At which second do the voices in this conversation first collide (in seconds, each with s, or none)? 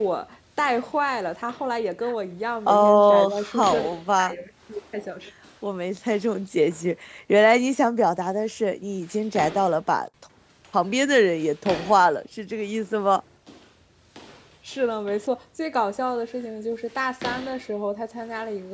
2.7 s